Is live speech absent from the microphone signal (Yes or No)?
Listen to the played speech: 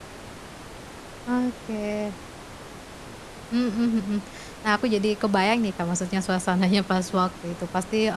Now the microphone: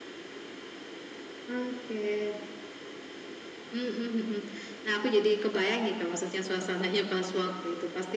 Yes